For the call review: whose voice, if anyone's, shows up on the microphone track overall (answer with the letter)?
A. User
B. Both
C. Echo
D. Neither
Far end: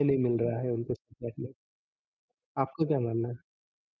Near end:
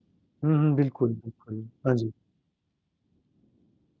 A